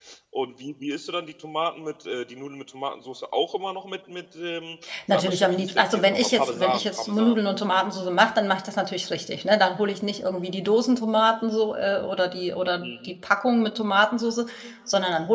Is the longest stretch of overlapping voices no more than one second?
No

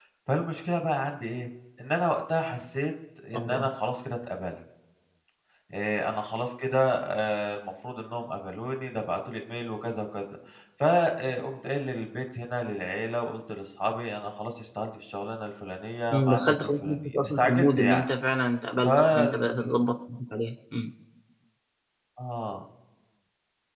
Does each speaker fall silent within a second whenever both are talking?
No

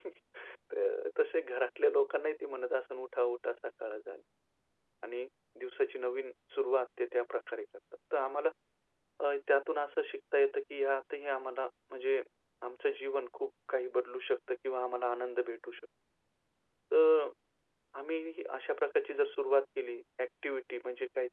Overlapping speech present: No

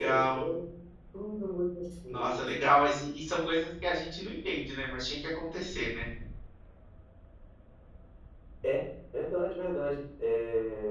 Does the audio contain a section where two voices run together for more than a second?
No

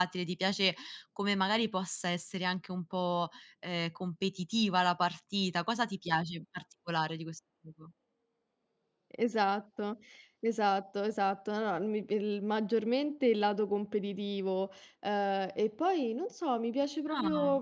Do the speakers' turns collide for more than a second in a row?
No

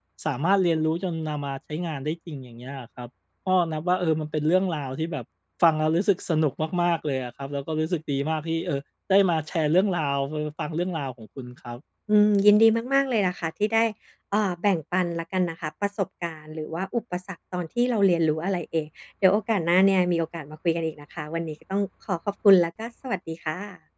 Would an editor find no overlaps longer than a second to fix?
Yes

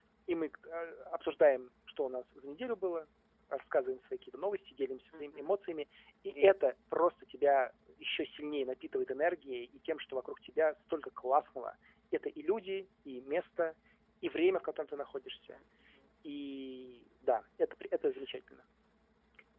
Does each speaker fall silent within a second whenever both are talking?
Yes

